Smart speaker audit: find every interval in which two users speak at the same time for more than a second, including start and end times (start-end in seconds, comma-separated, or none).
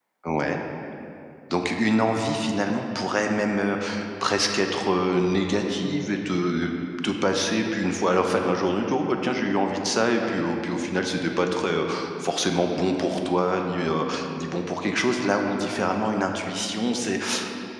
none